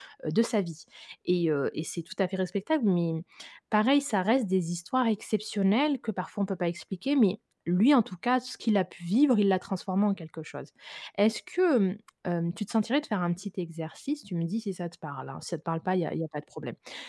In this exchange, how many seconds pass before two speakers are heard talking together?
none

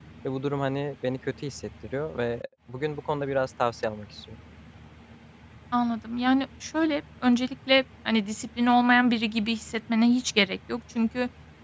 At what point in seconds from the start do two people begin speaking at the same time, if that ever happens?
none

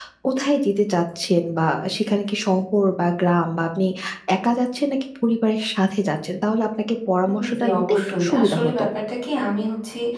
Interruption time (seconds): 7.4 s

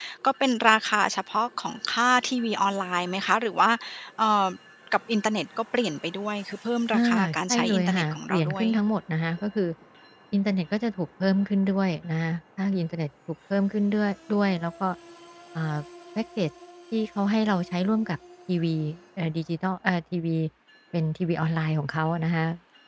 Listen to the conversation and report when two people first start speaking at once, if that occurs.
6.9 s

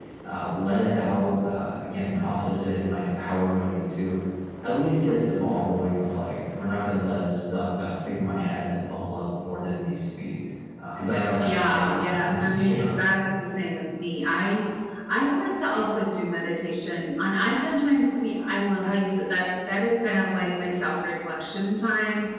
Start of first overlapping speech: 11.4 s

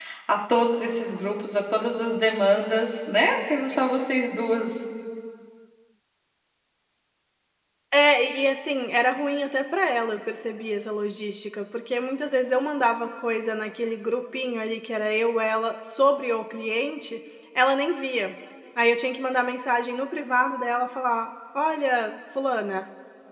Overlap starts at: none

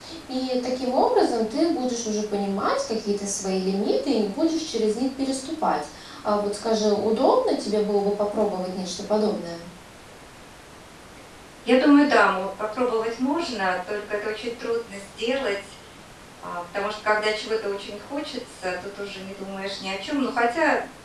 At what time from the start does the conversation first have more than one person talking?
none

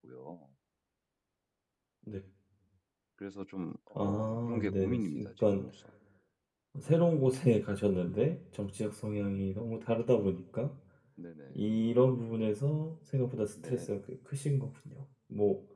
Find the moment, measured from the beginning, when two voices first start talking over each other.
4.0 s

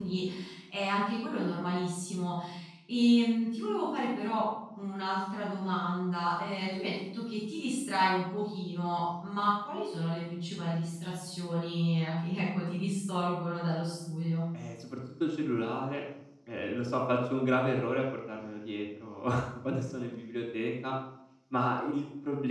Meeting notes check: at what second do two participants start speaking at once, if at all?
none

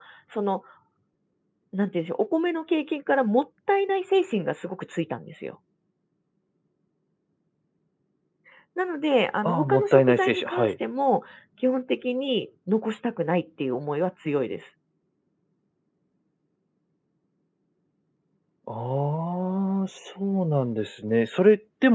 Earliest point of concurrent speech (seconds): 9.4 s

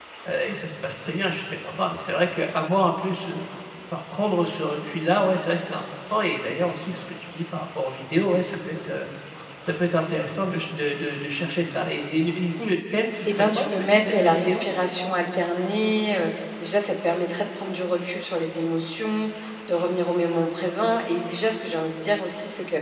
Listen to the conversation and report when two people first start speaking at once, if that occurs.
13.2 s

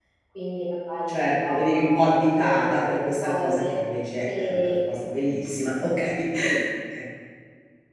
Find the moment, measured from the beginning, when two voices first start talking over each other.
1.1 s

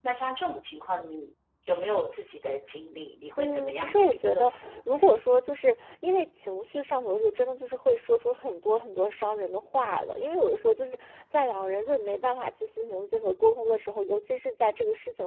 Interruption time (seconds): 3.4 s

